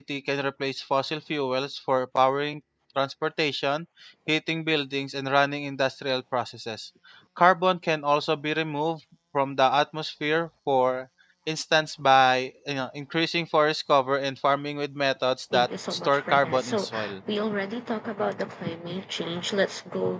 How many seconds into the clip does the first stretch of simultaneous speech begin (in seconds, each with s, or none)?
15.5 s